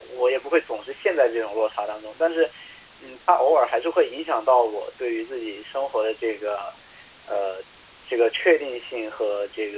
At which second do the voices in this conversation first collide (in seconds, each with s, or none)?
none